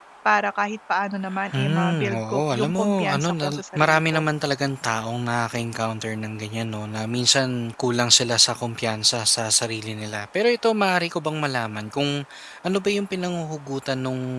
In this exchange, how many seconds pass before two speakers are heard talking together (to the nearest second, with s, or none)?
2 s